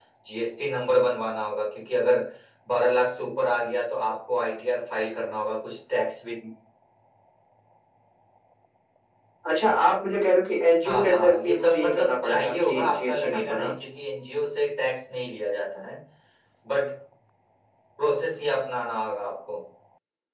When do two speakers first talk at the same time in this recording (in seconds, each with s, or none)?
10.8 s